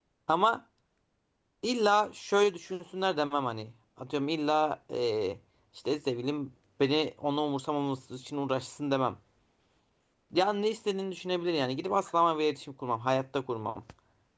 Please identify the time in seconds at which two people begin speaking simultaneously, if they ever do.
none

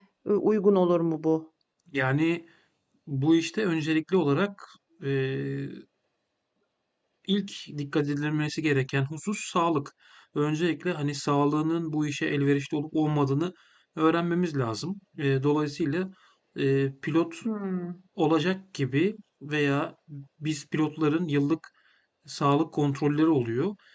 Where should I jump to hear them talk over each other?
none

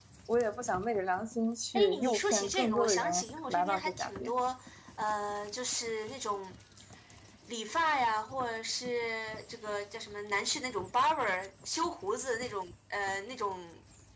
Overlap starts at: 1.8 s

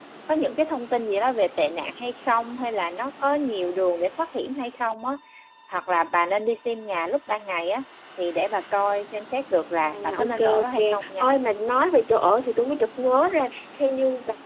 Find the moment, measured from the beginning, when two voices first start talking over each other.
9.9 s

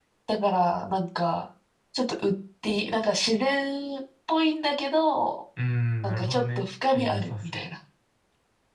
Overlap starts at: 6.0 s

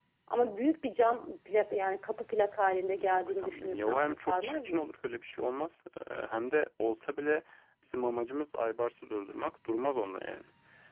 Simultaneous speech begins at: 3.0 s

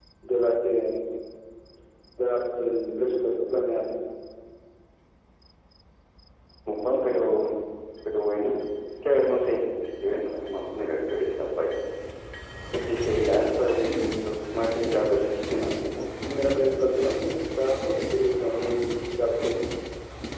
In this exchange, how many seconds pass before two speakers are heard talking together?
16.3 s

